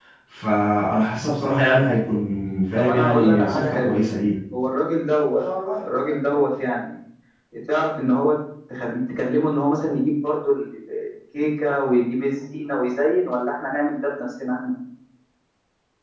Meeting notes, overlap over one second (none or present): present